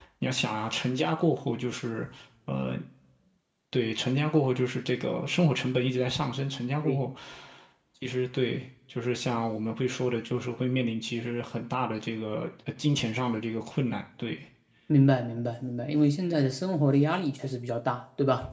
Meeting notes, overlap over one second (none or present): none